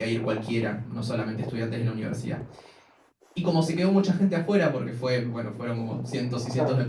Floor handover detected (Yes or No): No